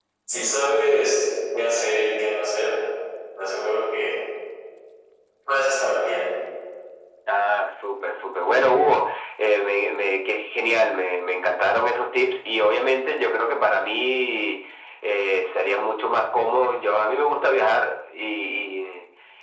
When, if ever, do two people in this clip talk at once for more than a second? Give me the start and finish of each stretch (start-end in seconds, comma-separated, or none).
none